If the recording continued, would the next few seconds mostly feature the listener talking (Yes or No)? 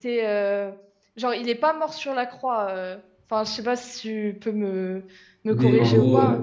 Yes